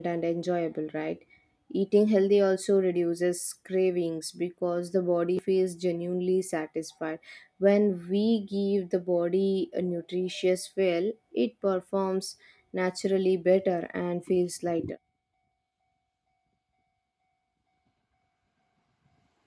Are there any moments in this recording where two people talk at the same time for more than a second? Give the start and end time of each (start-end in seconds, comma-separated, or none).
none